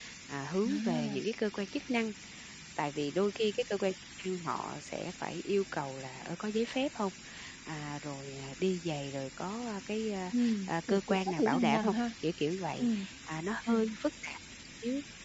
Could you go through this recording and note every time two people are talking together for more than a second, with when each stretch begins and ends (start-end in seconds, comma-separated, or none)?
10.4-11.9